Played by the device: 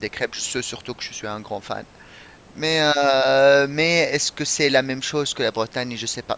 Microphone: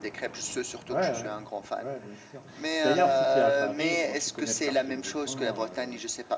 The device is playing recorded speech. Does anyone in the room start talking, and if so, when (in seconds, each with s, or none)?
0.9 s